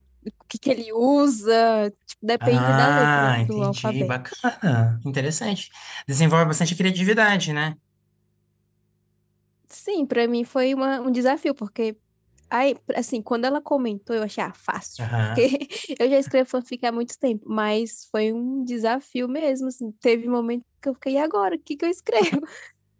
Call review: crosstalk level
present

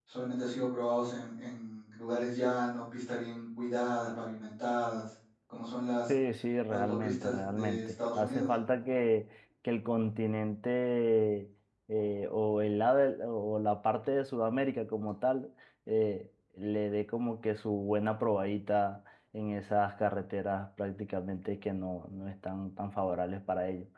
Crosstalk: present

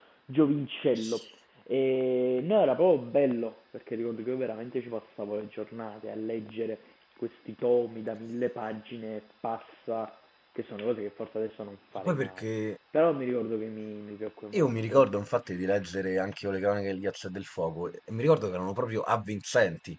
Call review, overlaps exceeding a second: none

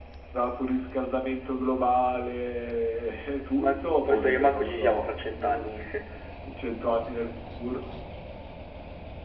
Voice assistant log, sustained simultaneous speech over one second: present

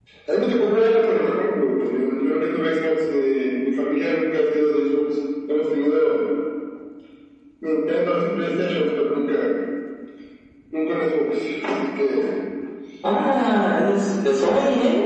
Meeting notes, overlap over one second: none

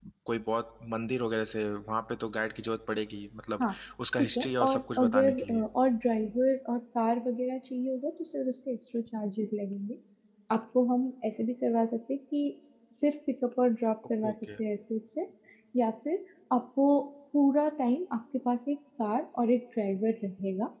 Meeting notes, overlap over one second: present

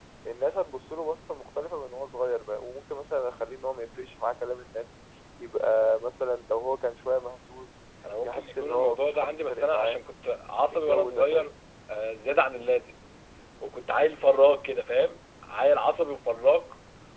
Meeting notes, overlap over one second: present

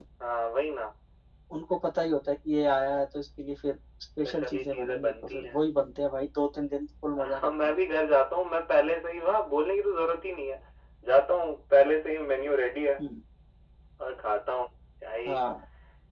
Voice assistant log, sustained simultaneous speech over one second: present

